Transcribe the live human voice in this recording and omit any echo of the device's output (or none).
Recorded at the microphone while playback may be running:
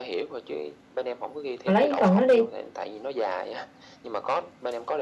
mà lấy cái phần đó đi